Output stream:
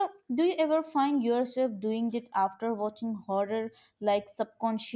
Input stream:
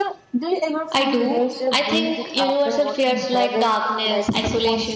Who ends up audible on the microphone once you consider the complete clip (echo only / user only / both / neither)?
both